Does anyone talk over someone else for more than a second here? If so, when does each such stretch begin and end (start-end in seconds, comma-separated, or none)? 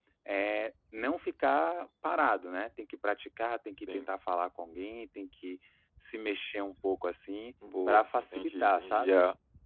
7.9-9.2